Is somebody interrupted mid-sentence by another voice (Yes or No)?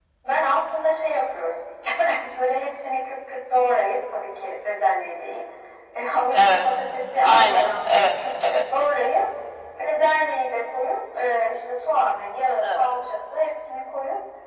Yes